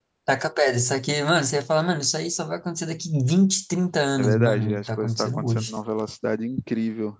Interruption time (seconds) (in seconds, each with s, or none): 4.2 s